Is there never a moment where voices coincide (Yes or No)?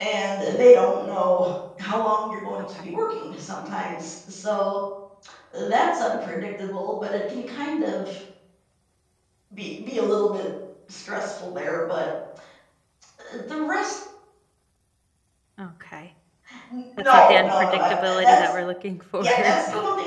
No